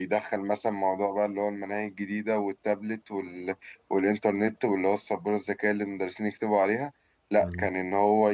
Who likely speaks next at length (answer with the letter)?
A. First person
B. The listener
A